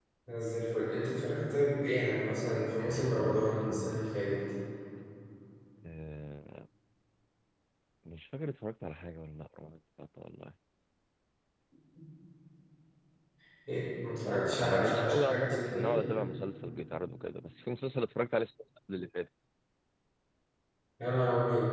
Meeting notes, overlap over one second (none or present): present